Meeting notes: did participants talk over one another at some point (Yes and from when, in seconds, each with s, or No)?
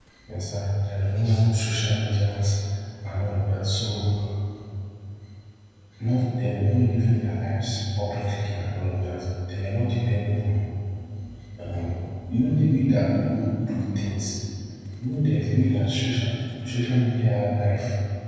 No